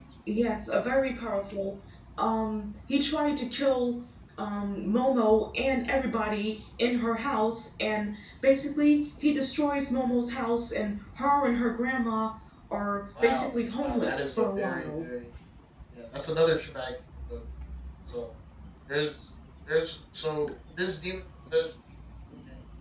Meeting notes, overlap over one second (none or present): present